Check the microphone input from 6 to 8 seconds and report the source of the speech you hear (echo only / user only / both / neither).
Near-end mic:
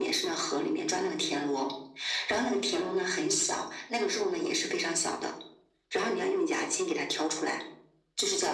echo only